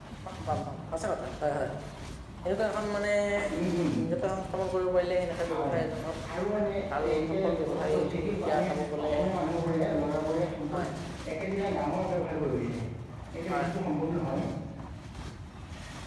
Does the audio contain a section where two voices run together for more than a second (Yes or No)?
Yes